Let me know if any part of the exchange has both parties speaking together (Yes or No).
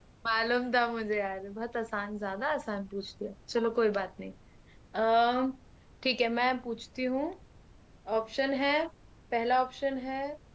No